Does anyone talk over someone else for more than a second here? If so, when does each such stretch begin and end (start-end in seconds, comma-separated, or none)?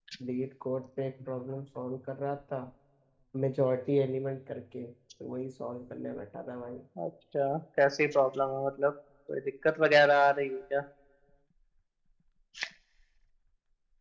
none